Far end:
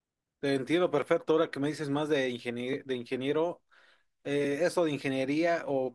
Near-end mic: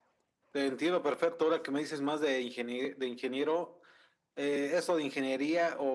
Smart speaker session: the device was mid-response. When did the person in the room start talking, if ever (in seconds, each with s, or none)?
none